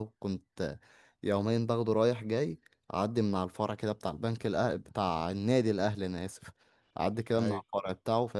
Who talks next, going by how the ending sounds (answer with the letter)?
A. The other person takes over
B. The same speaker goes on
B